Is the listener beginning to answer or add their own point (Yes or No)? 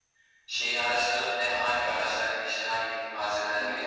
Yes